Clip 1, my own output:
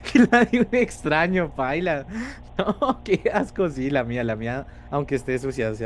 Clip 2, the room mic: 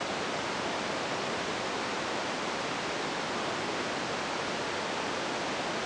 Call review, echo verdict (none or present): none